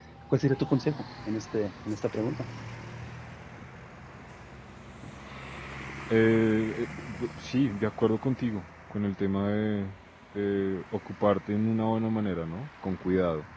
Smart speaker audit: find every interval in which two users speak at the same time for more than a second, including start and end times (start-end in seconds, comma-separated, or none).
none